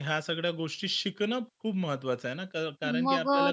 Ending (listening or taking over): taking over